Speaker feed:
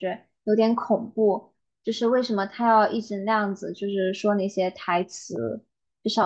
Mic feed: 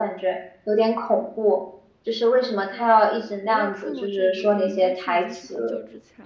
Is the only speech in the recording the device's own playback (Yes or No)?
No